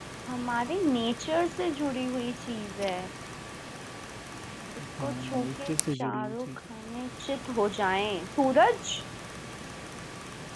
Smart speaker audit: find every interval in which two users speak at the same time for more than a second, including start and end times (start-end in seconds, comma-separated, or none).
5.0-6.5